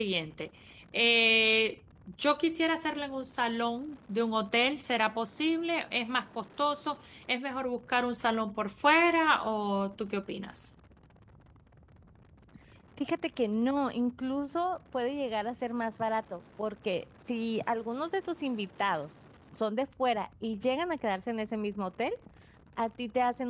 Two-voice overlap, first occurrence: none

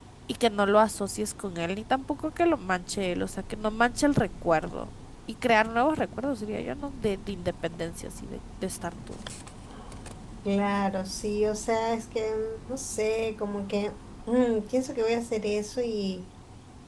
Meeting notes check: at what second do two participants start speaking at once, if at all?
none

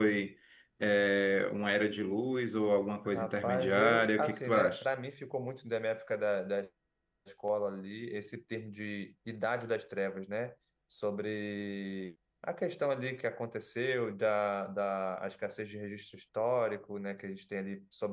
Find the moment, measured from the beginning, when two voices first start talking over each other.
3.0 s

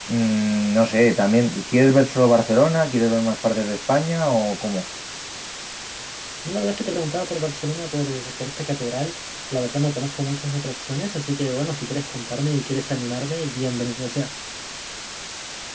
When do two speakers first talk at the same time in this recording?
none

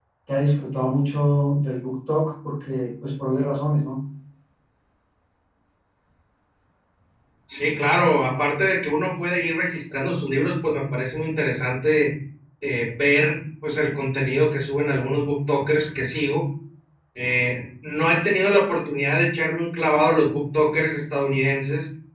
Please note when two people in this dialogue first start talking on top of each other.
none

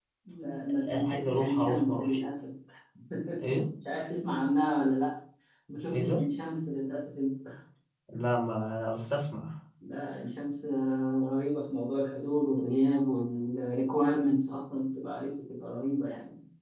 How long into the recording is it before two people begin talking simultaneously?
0.9 s

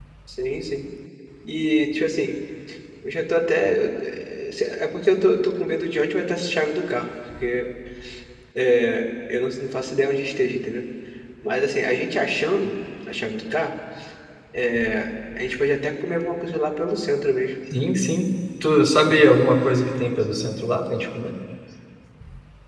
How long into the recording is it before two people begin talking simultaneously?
none

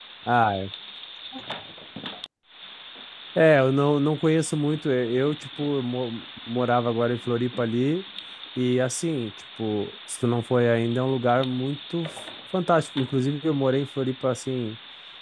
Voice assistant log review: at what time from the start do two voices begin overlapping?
none

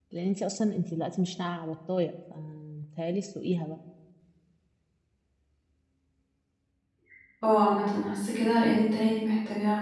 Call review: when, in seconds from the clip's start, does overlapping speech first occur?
none

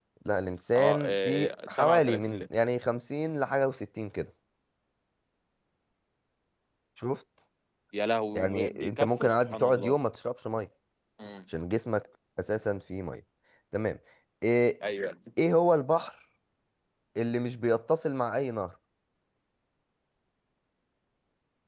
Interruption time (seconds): 0.8 s

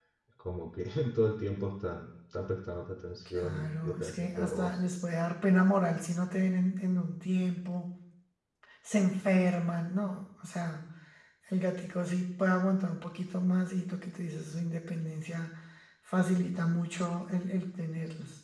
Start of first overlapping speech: 3.4 s

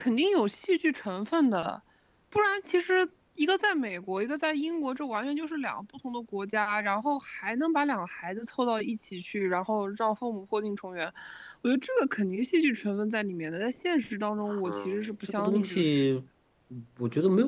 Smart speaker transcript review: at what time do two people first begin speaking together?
14.5 s

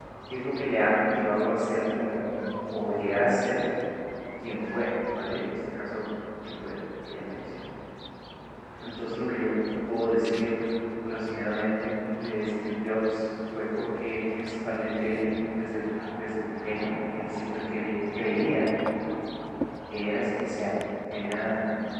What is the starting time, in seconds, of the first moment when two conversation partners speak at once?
none

